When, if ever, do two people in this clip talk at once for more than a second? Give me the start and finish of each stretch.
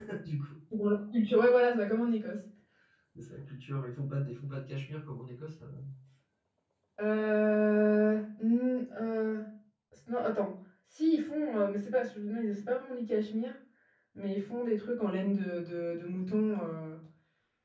none

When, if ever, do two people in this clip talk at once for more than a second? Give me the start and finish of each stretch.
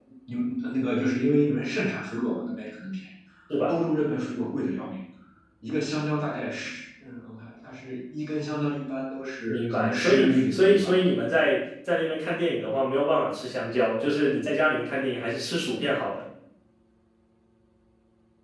9.5-10.9

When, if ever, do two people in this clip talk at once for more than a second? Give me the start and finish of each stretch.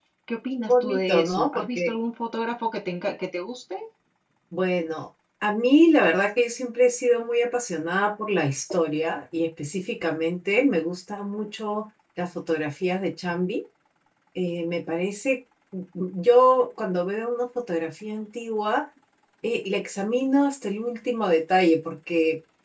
0.7-1.9

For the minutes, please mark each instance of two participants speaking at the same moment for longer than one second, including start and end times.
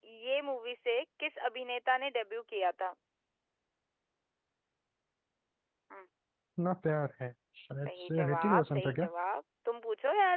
7.8-9.1

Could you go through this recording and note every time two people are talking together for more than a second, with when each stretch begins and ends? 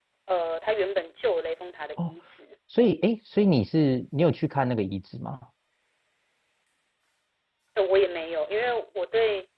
none

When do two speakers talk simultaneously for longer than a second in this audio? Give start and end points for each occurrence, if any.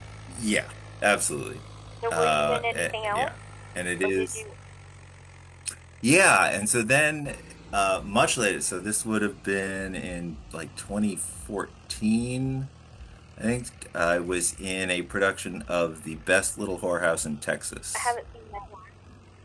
2.1-3.3

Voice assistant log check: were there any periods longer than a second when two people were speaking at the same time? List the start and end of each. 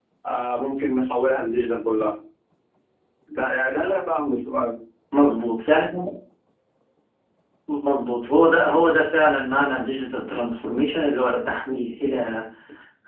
none

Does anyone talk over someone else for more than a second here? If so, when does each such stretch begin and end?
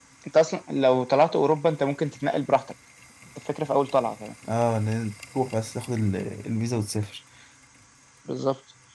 none

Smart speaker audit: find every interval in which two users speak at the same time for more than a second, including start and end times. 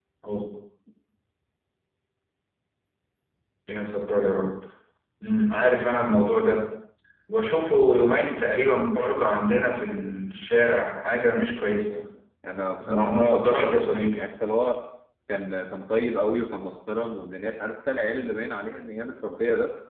12.9-14.2

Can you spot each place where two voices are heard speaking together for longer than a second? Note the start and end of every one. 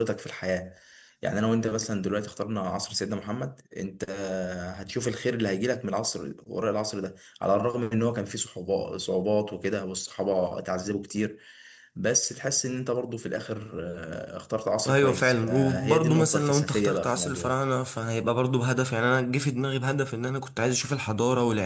14.8-17.5

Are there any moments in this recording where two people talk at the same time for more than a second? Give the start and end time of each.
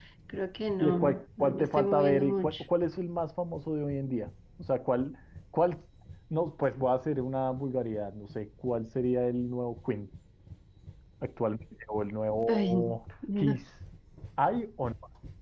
0.8-2.6

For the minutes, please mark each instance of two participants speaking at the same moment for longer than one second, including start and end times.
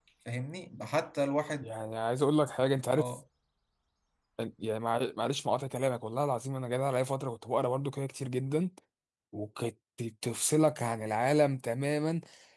none

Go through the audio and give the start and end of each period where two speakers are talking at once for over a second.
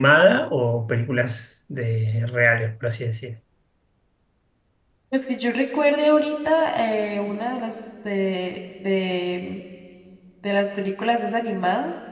none

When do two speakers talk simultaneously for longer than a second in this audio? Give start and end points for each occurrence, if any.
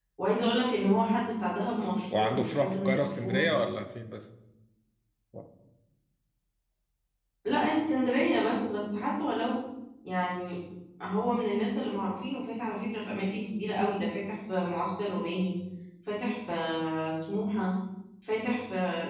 2.2-3.4

